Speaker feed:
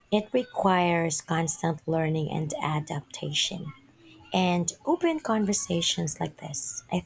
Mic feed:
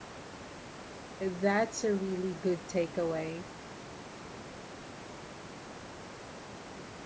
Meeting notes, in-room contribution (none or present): present